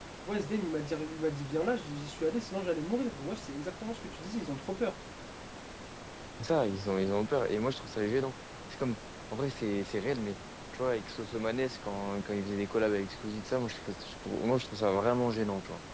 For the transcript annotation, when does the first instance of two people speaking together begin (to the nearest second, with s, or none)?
none